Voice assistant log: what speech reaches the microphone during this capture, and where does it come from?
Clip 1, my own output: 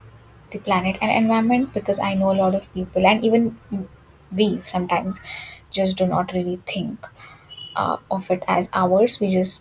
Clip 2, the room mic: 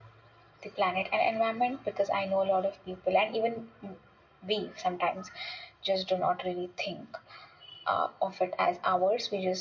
echo only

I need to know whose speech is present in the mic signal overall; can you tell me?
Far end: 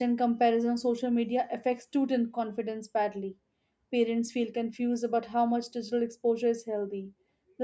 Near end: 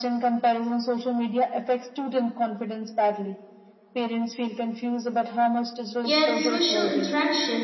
both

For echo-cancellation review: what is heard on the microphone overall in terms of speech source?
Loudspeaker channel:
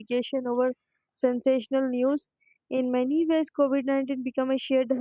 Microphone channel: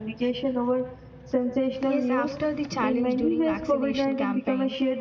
both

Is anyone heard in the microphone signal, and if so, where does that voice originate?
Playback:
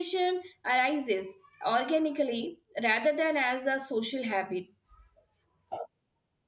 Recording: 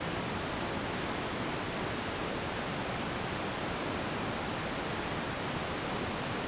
neither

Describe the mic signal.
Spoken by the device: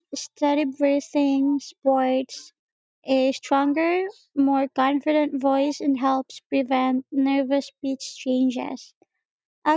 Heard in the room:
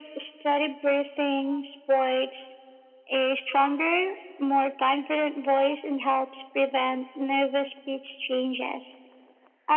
echo only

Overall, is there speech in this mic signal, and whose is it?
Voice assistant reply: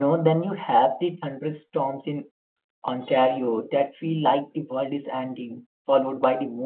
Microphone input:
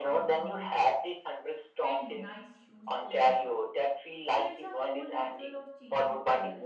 both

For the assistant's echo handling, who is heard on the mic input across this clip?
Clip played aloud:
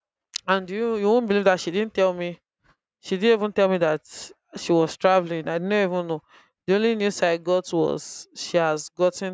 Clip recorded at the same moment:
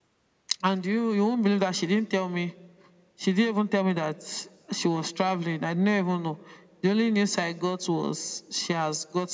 echo only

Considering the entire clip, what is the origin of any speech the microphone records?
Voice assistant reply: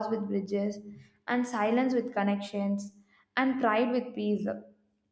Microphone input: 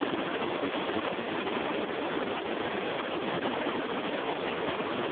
neither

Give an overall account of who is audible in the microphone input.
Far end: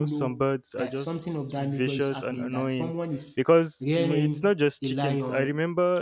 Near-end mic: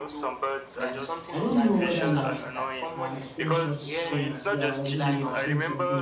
both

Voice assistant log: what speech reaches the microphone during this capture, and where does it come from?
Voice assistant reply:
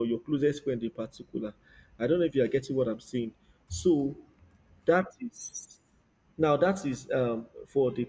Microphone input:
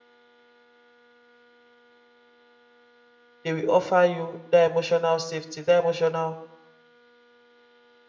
user only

